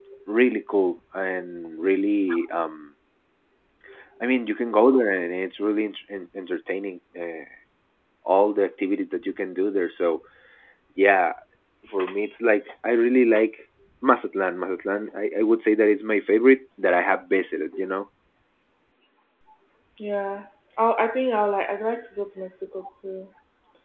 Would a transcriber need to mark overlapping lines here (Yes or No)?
No